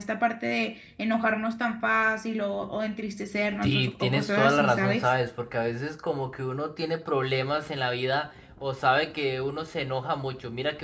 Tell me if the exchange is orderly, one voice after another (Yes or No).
No